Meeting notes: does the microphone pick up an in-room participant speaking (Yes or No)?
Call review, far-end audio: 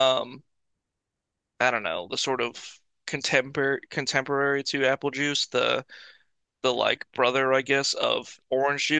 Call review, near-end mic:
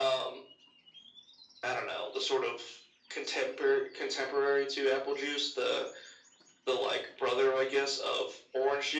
No